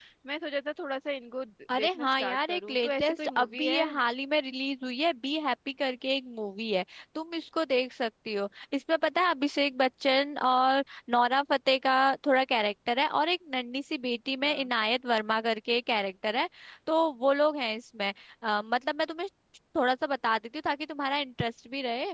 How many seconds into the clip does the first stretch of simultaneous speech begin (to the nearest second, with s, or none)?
2 s